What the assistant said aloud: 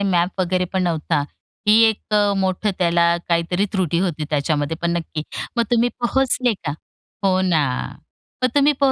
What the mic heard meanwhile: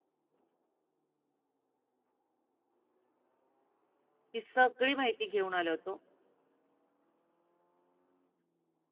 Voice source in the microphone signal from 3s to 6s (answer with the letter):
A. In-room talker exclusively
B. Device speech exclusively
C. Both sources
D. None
A